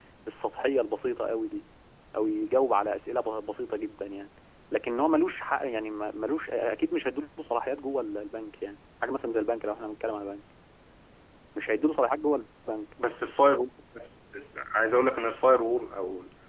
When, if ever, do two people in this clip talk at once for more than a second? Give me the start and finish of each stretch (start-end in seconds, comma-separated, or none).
none